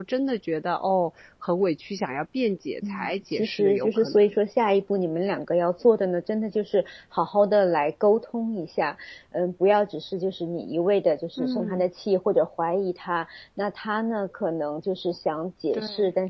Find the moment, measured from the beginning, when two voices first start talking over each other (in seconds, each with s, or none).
2.8 s